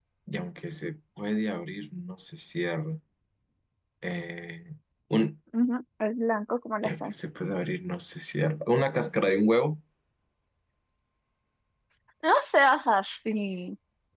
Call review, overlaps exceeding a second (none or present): none